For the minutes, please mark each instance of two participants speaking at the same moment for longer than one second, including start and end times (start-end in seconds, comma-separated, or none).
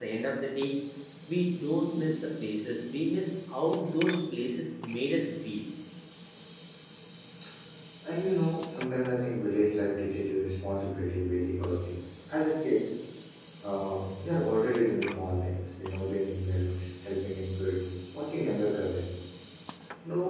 none